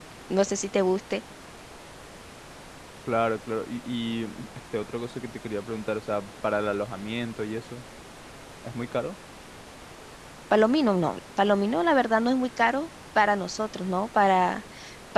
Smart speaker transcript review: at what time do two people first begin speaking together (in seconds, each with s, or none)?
none